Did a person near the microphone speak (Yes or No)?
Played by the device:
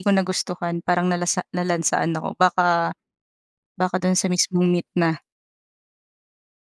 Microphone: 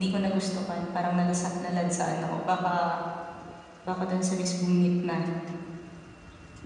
No